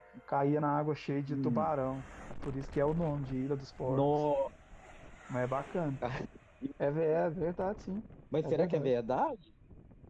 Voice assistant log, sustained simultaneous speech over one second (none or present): none